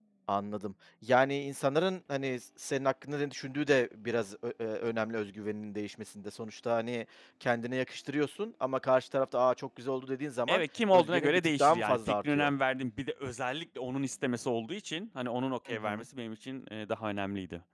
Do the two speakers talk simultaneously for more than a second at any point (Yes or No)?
Yes